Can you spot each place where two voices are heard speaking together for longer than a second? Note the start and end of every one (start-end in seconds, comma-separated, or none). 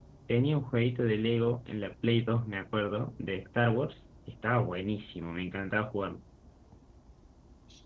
none